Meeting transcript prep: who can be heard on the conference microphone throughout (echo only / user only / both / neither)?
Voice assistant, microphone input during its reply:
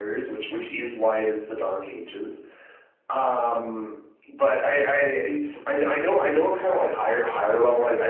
echo only